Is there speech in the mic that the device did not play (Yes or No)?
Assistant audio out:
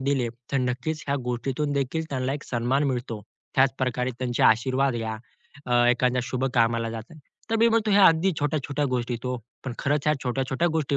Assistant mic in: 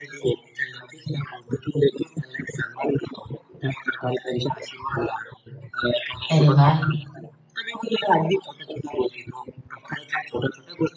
Yes